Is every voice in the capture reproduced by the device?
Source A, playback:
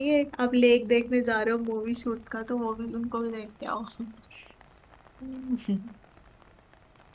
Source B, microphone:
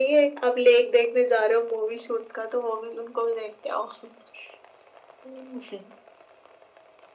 Yes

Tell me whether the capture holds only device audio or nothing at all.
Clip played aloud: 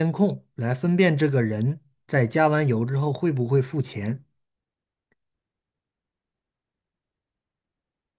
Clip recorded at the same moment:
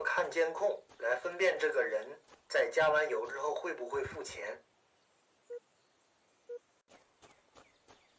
Yes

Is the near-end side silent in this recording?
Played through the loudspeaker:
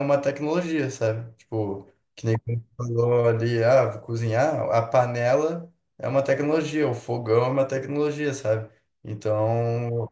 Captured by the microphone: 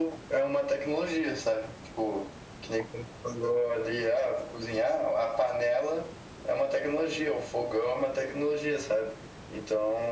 Yes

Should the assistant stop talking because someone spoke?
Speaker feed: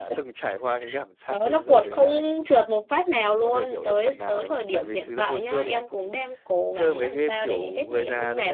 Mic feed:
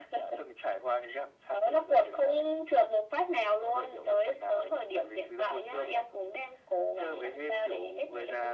No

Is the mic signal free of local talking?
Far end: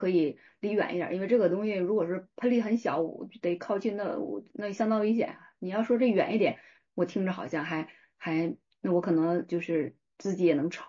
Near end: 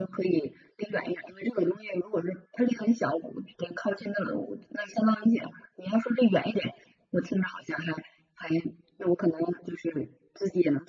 Yes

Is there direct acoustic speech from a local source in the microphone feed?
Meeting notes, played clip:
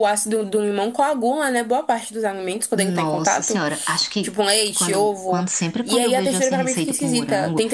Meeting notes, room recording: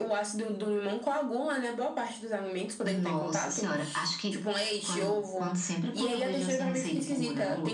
No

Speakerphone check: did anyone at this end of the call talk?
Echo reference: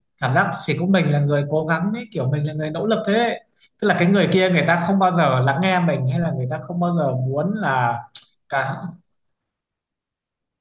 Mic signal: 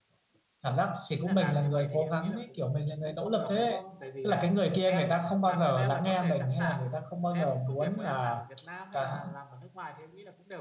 Yes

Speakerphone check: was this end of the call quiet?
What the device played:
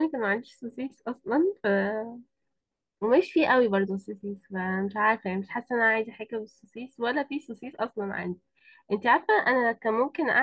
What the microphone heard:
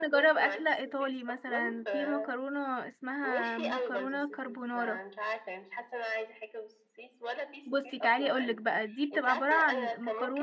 No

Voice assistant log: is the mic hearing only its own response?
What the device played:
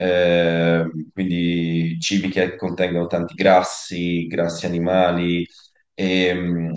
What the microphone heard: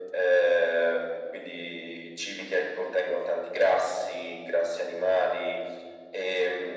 Yes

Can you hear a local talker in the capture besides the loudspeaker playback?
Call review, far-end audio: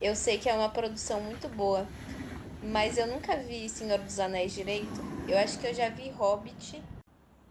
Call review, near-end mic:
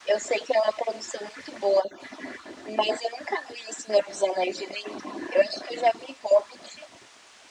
No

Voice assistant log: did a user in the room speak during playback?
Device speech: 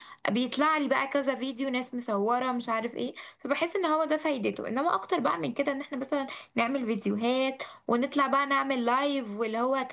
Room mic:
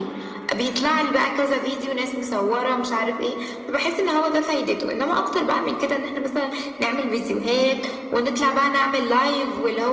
No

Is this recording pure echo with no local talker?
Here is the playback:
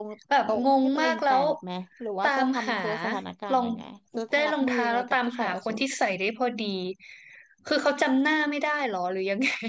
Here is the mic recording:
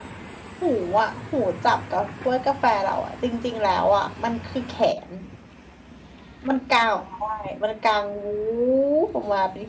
No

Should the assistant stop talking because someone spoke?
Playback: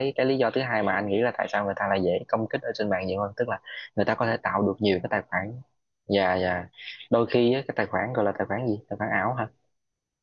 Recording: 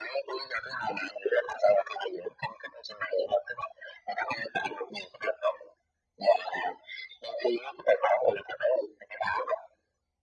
No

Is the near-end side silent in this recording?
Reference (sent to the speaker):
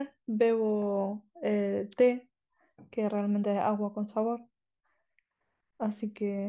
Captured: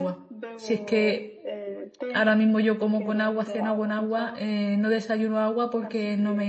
No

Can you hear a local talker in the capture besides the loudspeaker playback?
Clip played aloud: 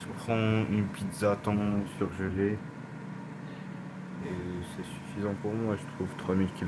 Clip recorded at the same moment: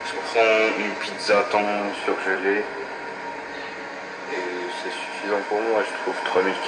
No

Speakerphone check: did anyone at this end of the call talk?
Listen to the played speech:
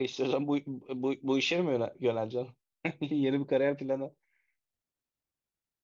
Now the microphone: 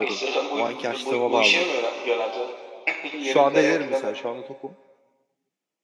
Yes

